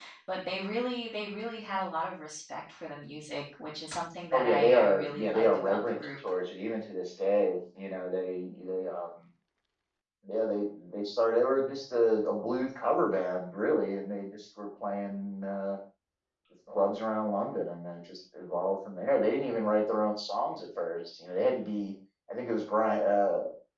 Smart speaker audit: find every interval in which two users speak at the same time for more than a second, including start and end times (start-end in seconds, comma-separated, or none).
4.3-6.1